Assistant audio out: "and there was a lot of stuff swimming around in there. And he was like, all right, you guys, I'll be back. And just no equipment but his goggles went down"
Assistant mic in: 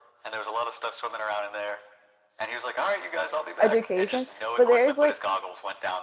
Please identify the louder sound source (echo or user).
user